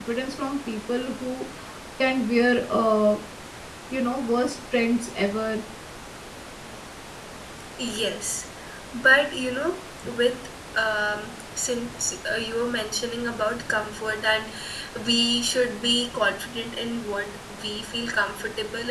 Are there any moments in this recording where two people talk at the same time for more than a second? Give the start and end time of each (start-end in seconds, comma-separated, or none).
none